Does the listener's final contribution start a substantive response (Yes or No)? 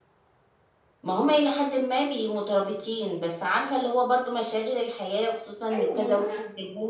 Yes